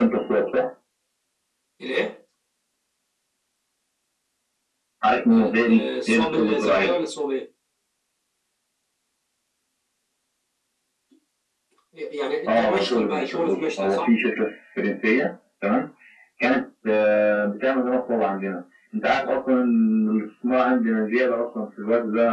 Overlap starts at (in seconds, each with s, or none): 5.3 s